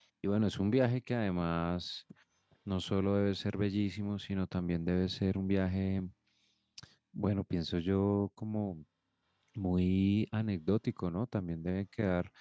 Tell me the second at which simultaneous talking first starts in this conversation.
none

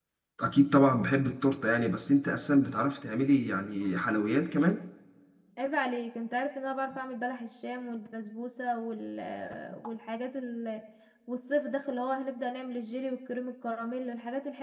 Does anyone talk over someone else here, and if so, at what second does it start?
none

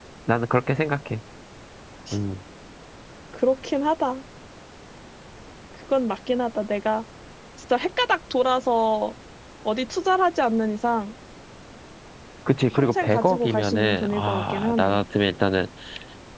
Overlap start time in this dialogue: 12.7 s

